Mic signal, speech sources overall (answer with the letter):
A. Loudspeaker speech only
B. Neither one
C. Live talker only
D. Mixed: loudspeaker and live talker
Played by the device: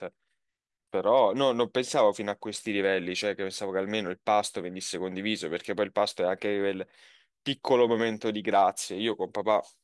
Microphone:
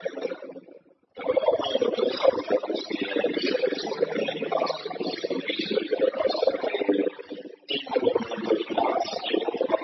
D